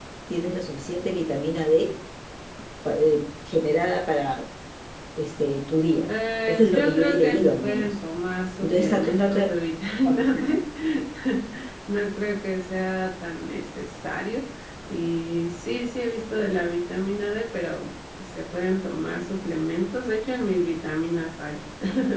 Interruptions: present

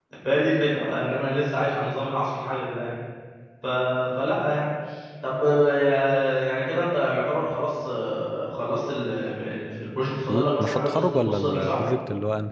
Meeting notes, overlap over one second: present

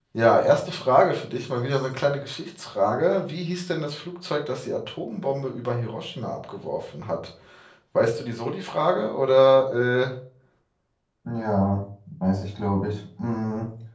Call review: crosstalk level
none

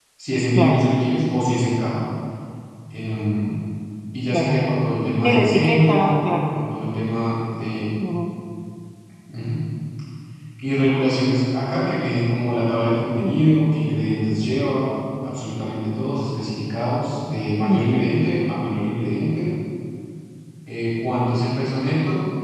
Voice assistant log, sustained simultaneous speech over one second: present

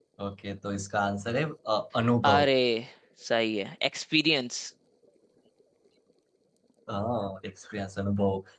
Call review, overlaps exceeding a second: none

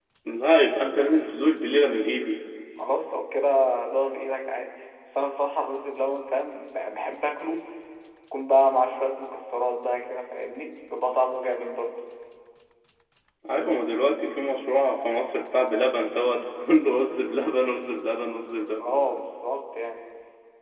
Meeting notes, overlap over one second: none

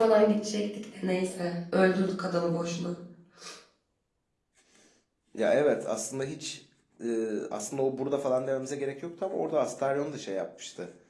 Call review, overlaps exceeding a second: none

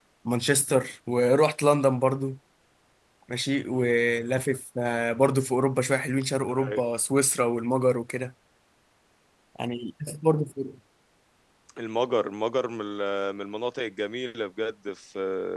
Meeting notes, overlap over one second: none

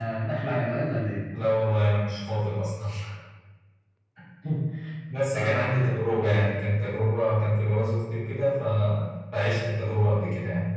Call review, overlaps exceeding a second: none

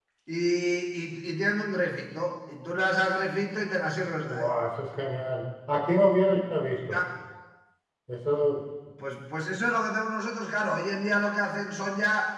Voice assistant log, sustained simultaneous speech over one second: none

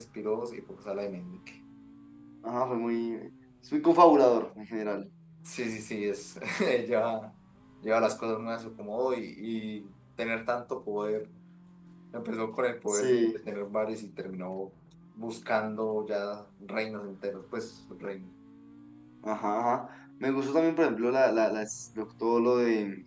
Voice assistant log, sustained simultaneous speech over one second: none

